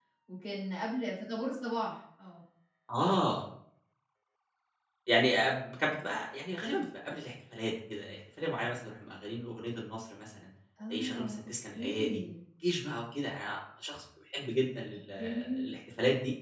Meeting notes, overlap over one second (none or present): present